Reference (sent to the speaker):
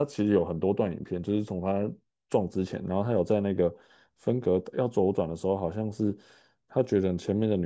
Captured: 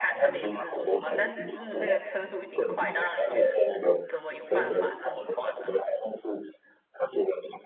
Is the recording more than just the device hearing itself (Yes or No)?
Yes